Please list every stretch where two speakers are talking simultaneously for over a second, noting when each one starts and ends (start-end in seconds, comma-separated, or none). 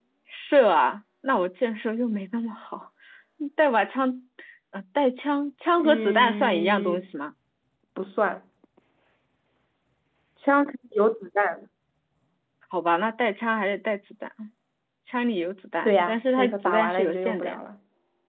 5.8-7.0, 15.8-17.6